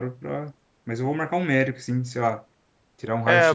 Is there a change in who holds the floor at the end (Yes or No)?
Yes